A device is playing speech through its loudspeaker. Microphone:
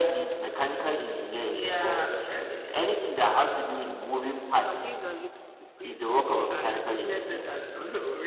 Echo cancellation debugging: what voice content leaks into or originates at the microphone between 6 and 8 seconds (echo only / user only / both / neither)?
both